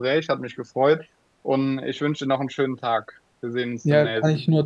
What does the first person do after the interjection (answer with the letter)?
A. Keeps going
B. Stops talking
B